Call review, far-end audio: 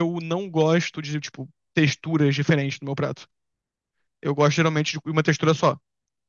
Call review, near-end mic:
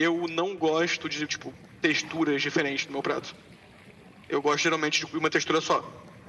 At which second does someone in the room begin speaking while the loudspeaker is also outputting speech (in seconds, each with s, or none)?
none